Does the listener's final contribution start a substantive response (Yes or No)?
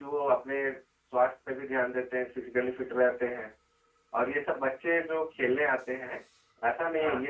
No